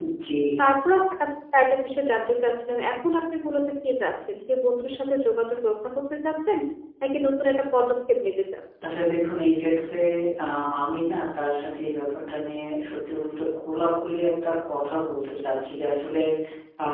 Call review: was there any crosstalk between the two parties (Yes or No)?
No